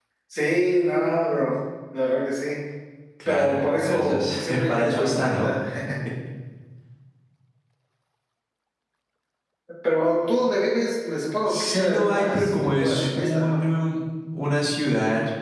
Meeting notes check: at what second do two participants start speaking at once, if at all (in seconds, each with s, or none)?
3.2 s